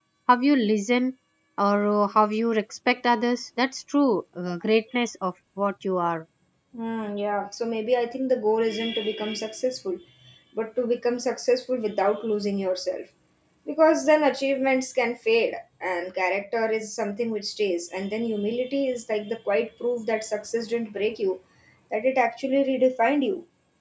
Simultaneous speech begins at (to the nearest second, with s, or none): none